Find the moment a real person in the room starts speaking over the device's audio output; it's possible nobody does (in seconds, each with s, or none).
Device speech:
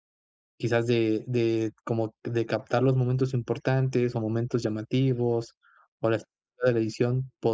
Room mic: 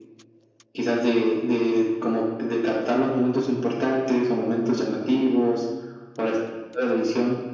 none